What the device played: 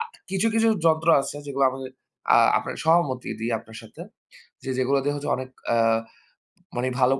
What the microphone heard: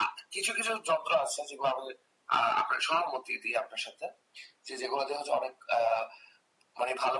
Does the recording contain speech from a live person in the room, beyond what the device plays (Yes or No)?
No